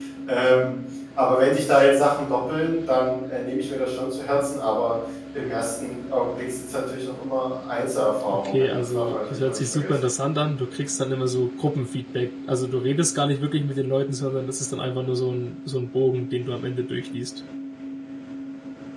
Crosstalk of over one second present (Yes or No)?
Yes